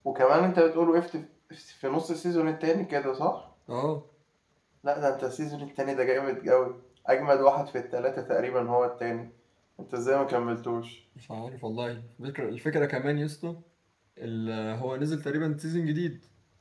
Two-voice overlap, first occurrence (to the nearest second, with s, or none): none